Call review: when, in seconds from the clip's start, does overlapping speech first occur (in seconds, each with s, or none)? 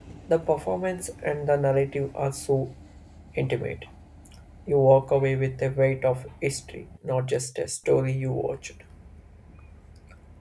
none